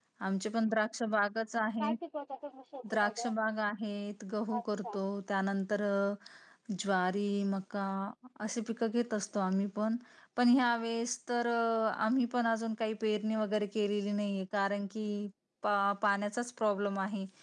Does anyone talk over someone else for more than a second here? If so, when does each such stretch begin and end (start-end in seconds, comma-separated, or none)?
none